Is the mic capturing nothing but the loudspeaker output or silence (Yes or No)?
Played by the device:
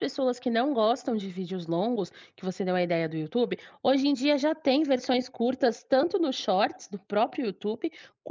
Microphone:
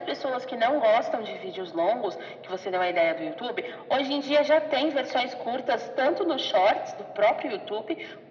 Yes